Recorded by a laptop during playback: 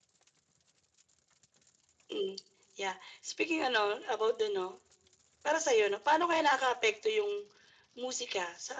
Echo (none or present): present